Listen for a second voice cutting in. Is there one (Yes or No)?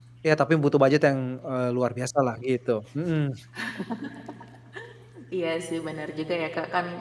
No